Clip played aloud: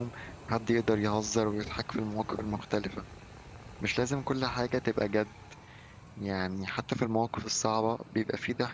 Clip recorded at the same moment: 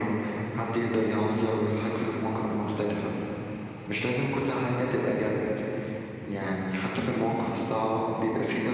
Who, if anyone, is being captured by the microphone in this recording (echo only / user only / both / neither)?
both